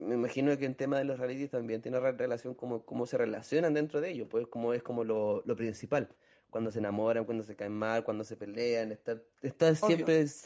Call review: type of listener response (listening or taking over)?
listening